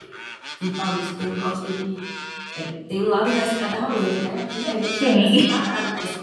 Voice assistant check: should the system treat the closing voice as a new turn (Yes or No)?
No